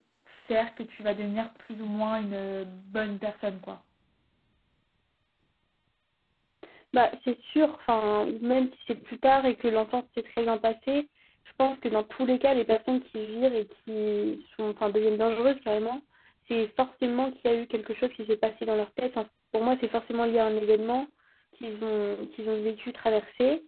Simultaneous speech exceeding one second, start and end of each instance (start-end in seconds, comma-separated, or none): none